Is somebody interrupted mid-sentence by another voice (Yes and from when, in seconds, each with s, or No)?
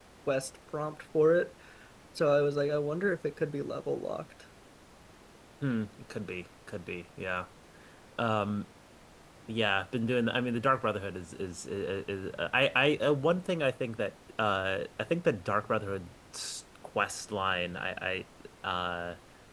No